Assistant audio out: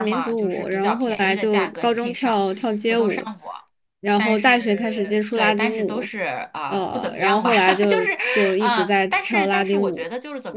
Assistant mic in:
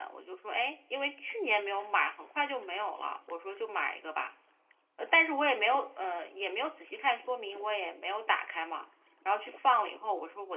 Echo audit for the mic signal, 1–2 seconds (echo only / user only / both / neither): user only